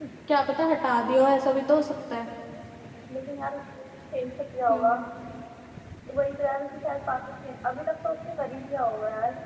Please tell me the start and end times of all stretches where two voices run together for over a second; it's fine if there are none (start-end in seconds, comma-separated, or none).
none